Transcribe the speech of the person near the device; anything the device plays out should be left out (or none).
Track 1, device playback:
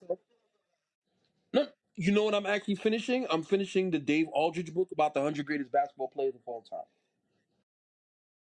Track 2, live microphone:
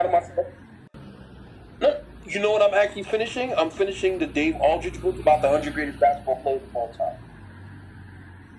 none